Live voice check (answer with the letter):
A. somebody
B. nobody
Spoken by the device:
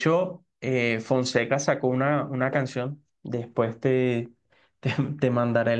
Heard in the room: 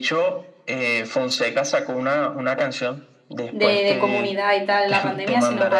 A